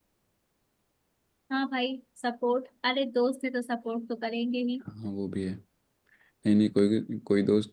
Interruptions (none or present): none